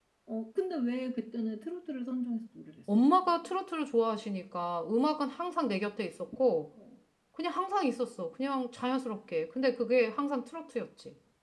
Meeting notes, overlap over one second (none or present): none